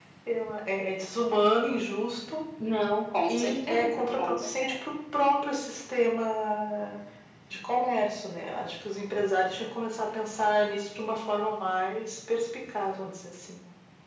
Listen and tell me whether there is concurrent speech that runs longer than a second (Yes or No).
Yes